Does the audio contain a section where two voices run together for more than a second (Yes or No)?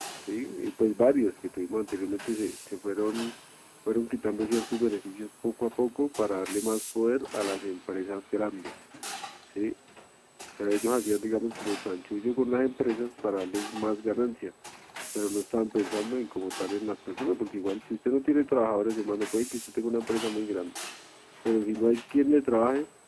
No